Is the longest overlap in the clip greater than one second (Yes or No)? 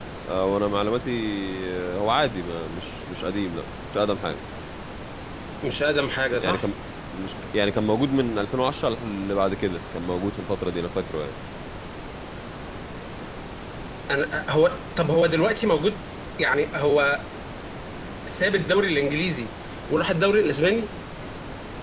No